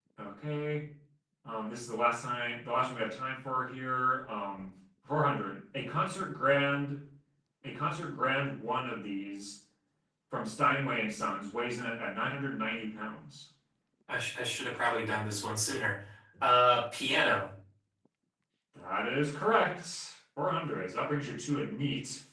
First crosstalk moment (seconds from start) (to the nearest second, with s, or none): none